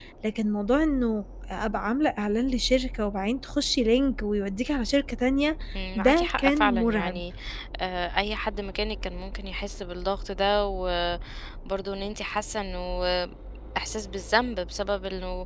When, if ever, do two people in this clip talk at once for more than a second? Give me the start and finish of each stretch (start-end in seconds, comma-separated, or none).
6.0-7.2